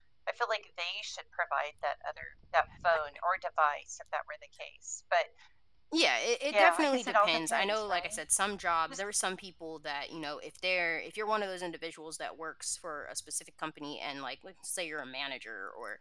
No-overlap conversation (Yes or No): No